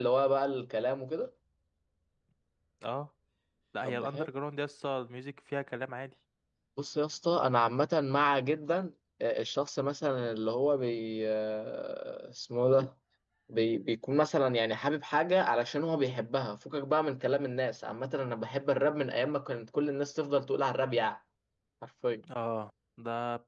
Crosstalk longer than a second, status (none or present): none